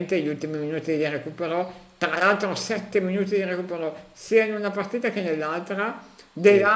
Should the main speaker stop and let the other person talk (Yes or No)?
No